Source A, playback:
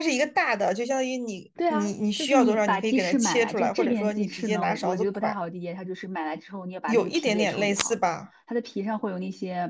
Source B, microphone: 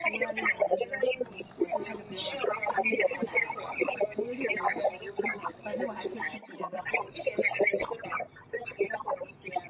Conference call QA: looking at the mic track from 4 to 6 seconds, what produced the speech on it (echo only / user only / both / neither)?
both